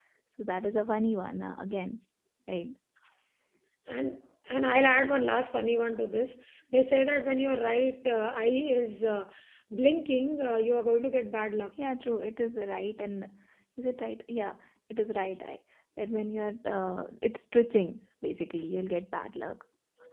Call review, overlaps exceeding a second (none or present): none